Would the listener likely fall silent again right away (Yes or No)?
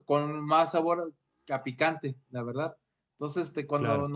Yes